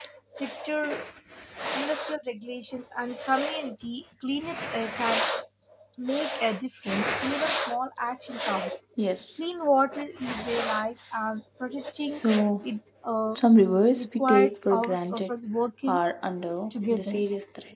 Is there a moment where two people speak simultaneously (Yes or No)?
Yes